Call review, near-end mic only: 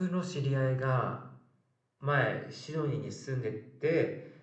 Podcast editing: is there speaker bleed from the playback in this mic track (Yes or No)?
No